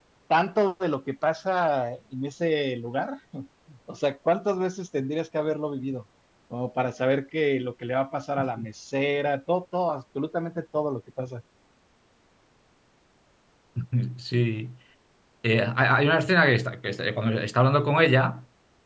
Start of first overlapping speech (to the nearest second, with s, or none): none